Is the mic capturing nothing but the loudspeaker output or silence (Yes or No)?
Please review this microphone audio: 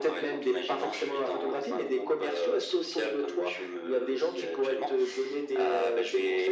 Yes